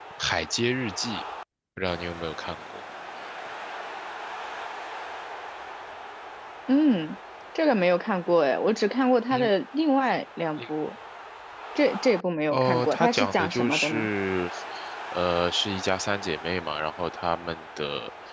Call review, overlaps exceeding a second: present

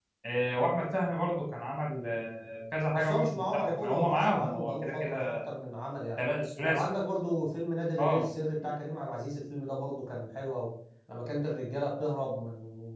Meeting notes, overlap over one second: present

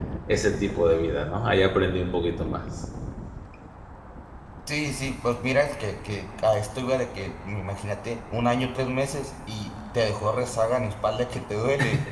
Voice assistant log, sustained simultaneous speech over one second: none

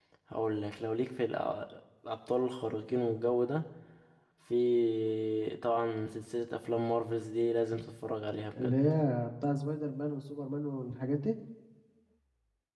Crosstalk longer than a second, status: none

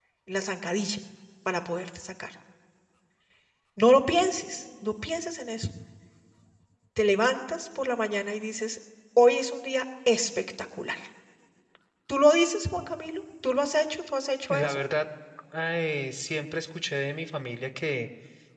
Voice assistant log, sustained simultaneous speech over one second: none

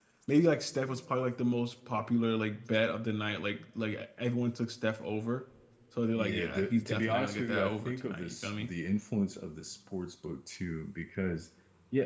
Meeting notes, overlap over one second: present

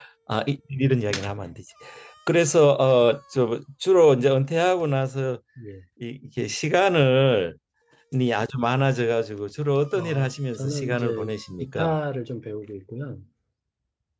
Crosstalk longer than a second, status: present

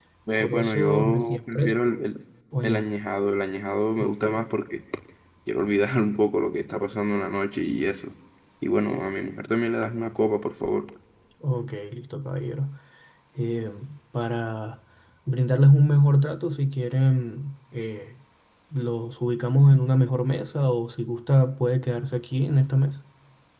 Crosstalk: present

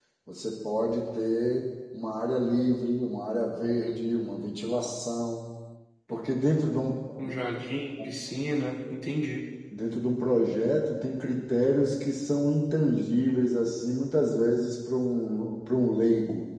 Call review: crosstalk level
none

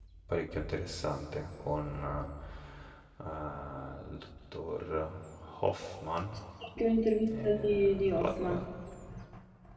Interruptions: present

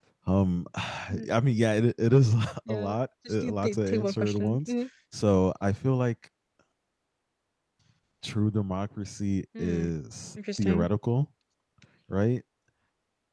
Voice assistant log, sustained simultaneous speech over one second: present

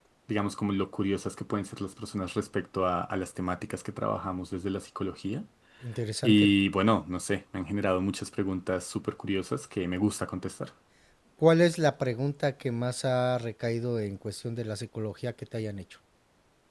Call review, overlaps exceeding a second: none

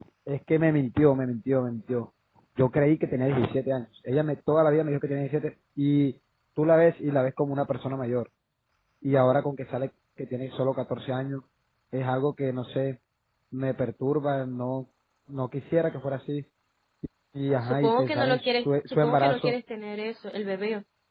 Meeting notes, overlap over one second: present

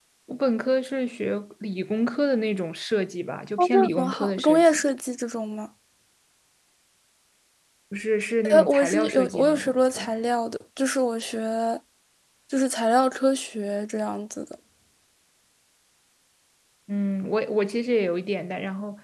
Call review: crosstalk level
present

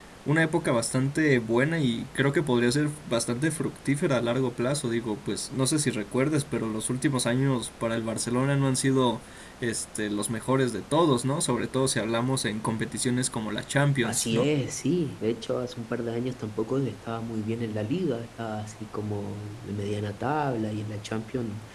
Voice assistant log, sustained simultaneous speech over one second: none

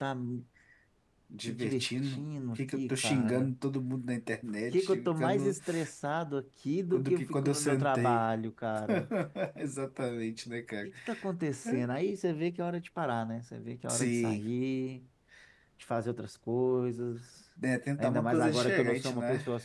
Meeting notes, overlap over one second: present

